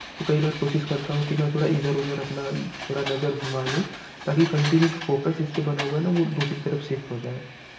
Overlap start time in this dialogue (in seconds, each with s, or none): none